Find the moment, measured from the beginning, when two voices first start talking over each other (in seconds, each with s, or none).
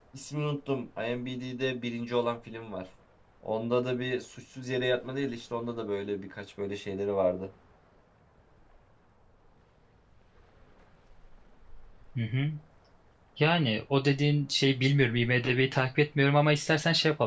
none